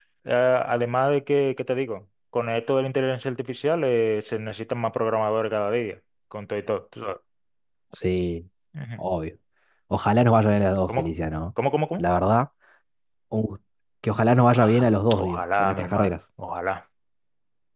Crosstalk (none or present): present